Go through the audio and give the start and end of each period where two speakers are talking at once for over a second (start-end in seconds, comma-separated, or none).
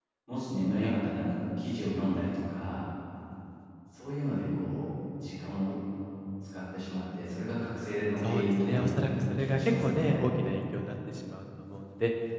8.2-10.2